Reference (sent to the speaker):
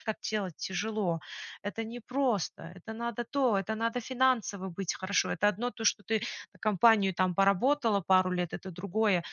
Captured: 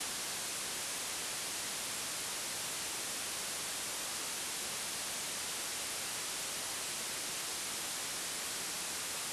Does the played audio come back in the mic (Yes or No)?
No